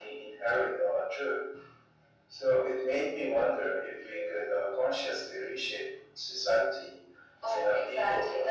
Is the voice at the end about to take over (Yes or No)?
Yes